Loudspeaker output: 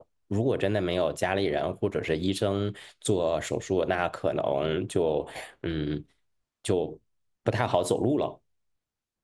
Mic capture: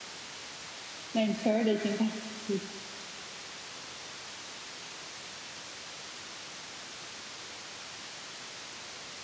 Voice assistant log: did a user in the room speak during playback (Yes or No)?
Yes